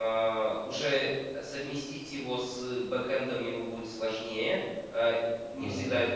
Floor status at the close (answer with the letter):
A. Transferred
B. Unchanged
B